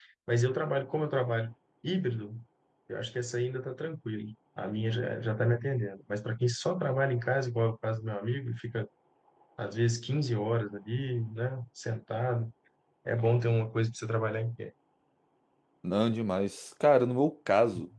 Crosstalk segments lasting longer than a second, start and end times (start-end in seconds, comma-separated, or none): none